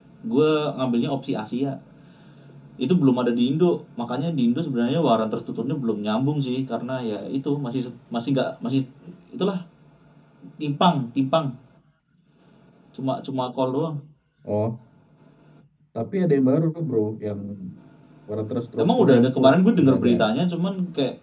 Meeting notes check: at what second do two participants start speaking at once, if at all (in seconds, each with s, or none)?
18.8 s